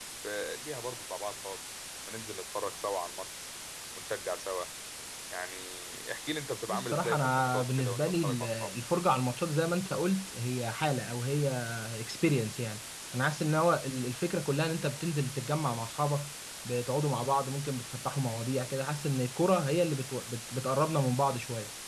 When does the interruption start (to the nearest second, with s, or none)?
7 s